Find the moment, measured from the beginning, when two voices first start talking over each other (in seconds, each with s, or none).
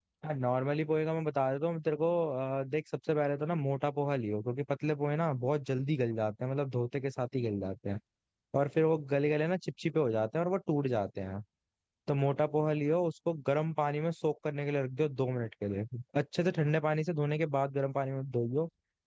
none